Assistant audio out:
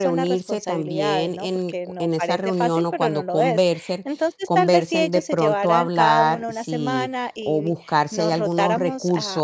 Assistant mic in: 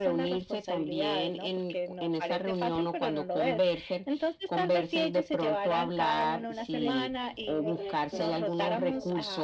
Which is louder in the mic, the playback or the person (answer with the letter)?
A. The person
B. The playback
B